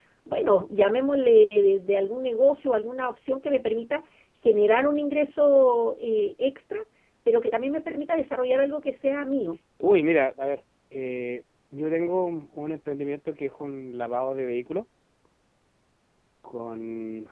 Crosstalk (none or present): none